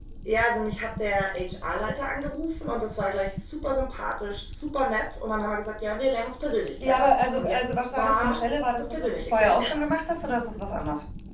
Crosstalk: present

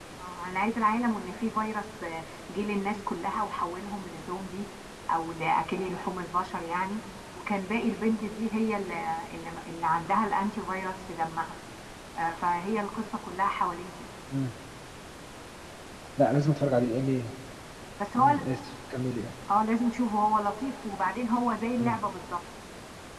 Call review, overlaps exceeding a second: none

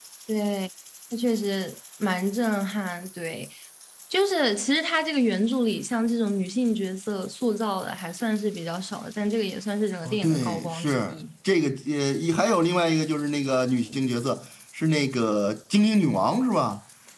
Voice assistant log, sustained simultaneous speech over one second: present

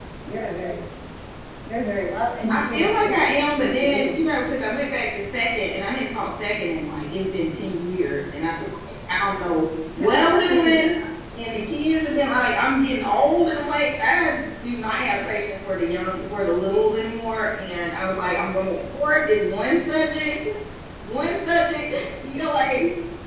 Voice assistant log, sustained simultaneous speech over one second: present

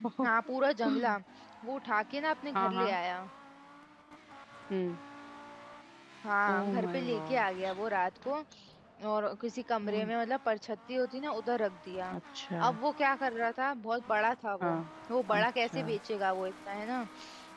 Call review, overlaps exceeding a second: present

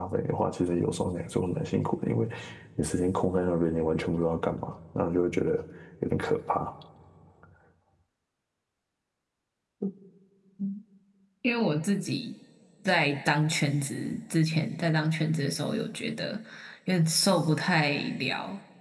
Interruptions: none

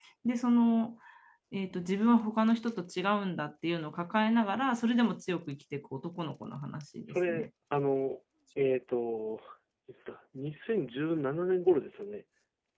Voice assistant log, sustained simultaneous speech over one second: none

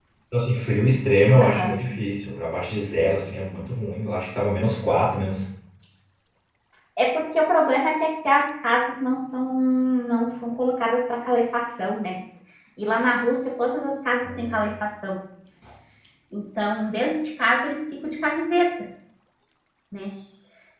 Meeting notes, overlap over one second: none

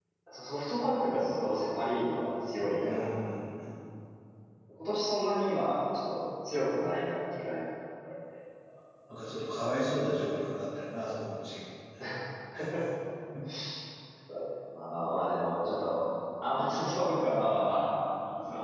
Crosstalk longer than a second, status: none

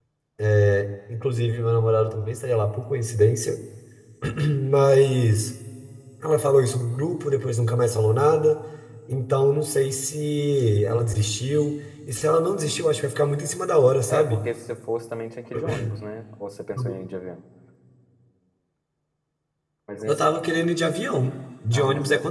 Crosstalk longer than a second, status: none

